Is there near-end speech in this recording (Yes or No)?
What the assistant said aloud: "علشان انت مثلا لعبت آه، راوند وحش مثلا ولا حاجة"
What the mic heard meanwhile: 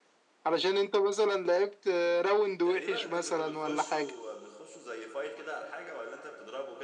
Yes